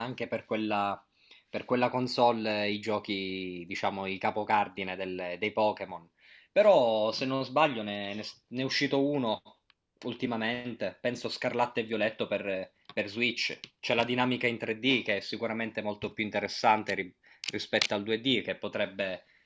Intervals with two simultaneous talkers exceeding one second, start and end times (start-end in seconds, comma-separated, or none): none